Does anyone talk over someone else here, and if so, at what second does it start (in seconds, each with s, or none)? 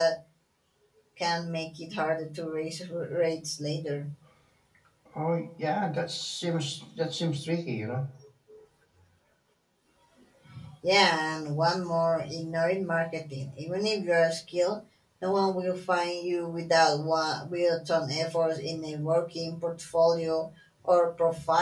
none